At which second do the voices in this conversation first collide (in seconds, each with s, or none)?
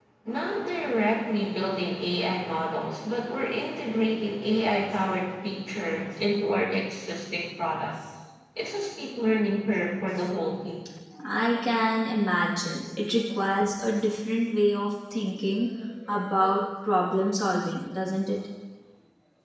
none